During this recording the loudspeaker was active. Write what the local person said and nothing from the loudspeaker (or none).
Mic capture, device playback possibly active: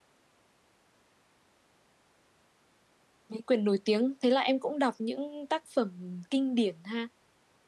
mấy quyển nổi tiếng thế là em cũng đọc những tác phẩm kinh điển ha